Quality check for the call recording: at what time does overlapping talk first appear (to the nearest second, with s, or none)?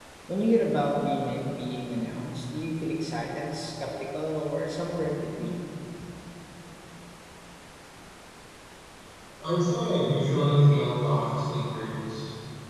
none